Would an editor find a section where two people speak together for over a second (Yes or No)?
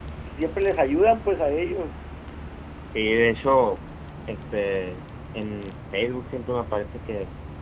No